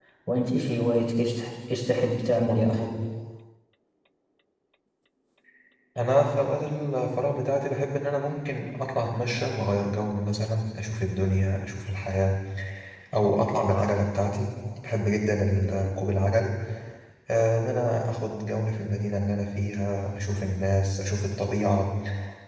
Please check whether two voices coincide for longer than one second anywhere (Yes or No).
No